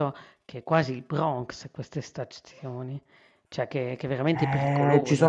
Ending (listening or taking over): taking over